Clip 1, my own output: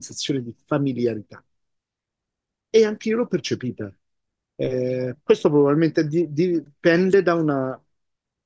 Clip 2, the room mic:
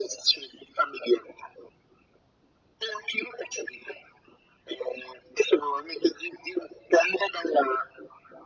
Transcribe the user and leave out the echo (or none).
none